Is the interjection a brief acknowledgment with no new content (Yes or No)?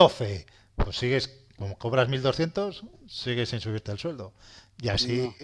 Yes